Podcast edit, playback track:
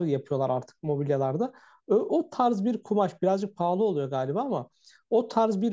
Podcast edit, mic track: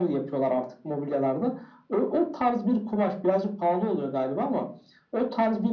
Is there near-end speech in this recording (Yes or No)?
No